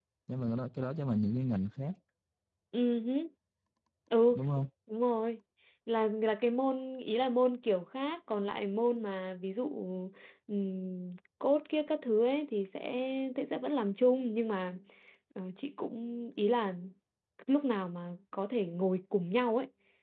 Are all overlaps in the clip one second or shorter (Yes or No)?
Yes